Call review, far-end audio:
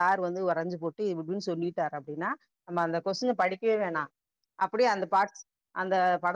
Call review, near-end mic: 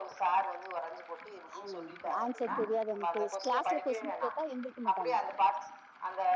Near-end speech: present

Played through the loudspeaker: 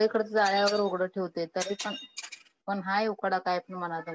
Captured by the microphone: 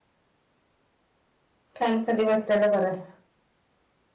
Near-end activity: present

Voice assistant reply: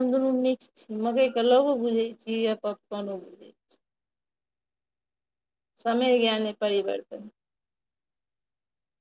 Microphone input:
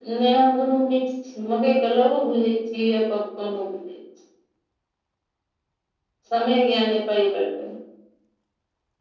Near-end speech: none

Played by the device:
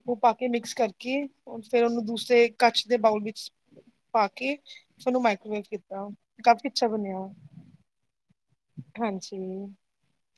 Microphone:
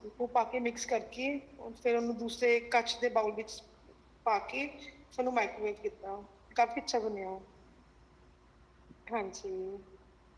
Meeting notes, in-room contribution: none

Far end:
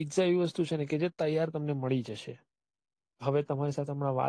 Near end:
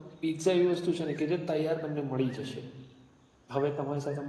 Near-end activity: none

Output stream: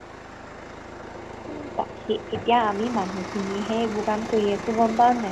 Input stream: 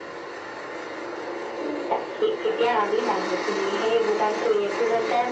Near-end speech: none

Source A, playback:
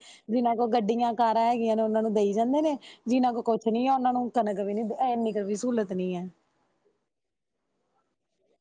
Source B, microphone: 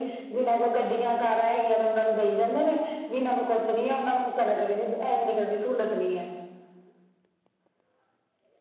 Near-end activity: none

